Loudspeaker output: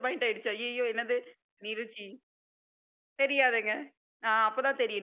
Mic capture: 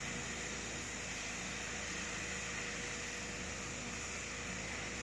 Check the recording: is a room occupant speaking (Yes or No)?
No